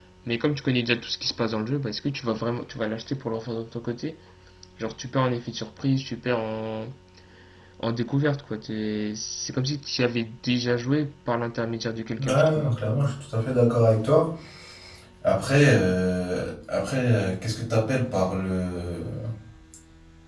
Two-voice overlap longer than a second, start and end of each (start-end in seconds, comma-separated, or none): none